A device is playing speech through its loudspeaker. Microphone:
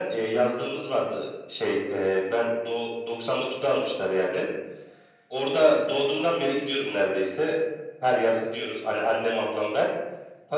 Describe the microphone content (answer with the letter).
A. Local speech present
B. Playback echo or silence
B